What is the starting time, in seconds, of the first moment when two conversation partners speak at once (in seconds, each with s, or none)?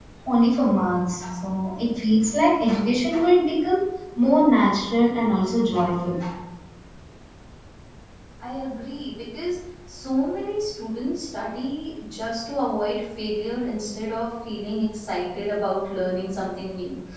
none